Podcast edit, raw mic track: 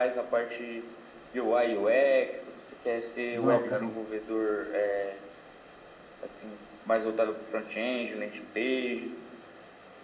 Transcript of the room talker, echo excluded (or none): Não, eu quero.